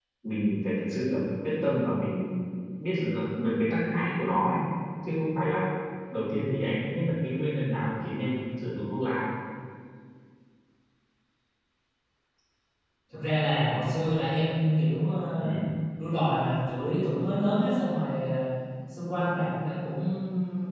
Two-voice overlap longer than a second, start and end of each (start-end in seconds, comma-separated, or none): none